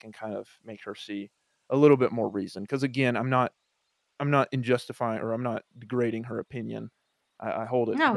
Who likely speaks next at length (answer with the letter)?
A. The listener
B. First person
B